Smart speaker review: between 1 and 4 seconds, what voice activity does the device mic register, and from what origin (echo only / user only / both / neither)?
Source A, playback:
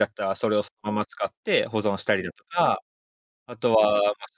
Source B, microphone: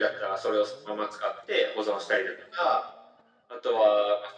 echo only